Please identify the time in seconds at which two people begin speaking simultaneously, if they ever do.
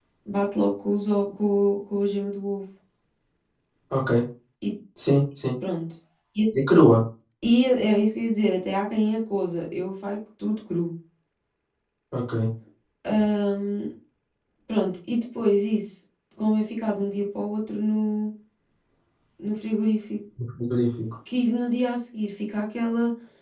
none

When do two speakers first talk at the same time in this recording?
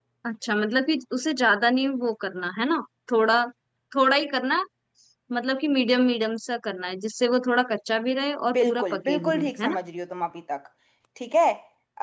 8.5 s

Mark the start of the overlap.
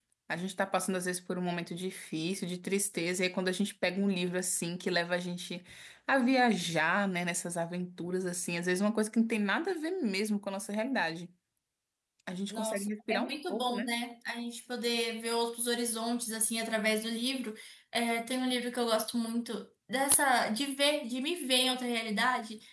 12.5 s

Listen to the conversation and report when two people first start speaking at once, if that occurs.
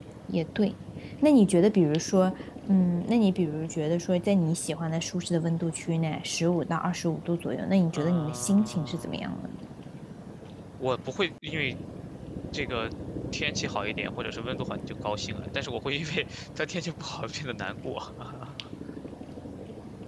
7.9 s

